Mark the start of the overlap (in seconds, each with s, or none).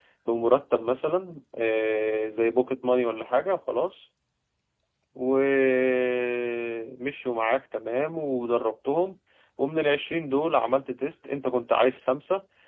none